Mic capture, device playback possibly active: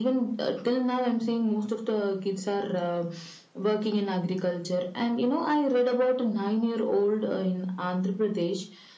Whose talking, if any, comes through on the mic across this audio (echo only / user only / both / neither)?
echo only